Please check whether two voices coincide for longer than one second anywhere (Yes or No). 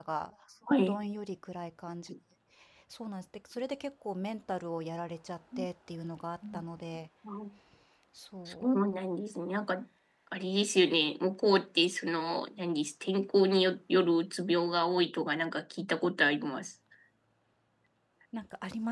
No